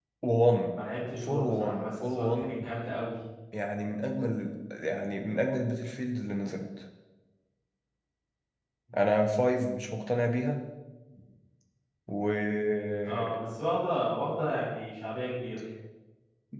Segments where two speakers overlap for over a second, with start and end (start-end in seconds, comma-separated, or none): 1.2-2.6